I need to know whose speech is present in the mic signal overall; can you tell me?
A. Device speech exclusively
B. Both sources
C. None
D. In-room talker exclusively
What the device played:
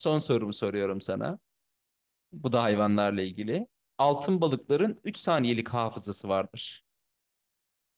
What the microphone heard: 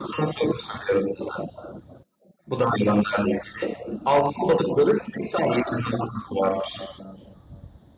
A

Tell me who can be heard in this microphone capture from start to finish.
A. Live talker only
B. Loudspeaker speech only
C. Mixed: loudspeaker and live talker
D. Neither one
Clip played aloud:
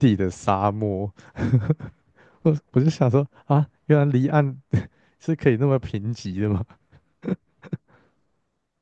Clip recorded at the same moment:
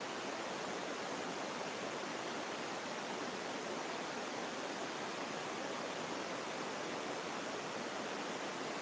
D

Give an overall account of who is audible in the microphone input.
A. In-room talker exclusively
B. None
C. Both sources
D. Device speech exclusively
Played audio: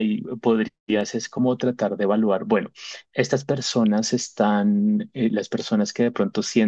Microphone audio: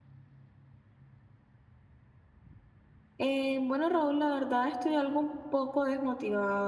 A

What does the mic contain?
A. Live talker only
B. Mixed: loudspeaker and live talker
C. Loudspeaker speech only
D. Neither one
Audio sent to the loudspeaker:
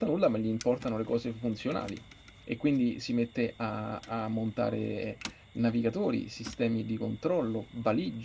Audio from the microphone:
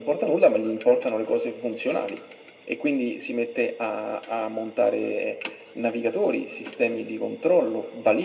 C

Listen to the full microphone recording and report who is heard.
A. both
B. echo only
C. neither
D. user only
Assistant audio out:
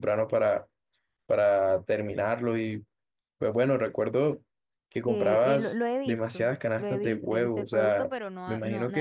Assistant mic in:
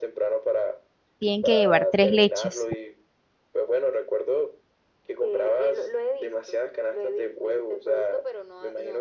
A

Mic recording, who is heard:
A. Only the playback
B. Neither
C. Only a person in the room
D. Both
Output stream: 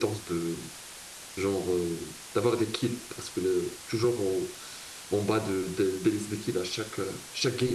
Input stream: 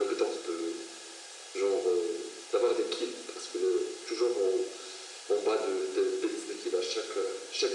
A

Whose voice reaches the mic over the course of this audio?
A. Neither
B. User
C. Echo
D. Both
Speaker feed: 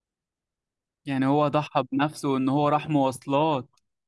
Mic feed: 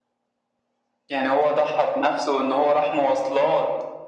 C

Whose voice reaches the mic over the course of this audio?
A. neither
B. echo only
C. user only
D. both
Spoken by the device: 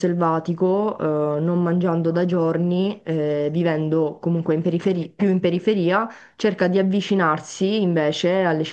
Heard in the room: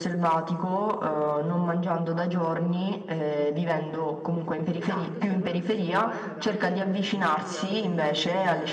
D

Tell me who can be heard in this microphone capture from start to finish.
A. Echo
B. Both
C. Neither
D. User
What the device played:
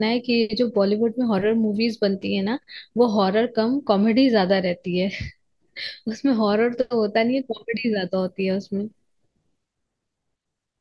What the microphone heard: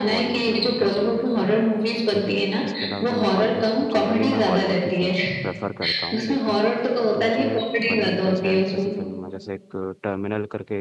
B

